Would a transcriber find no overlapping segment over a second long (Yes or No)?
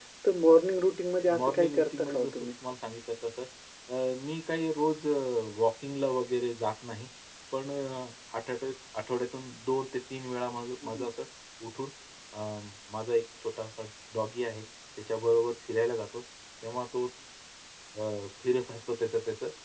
No